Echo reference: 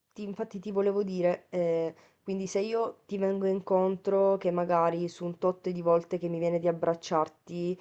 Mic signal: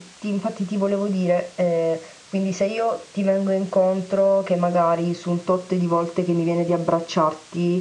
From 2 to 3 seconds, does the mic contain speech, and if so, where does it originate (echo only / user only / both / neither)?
echo only